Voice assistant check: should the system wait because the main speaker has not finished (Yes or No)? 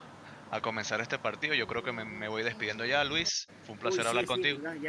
No